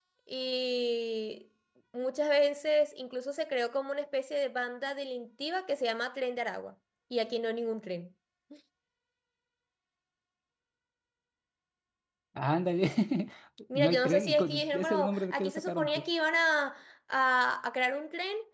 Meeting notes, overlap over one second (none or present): present